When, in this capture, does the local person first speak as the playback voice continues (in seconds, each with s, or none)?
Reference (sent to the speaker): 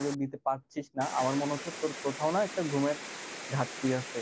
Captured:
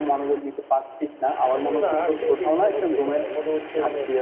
1.6 s